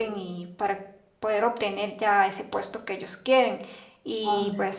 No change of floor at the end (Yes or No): Yes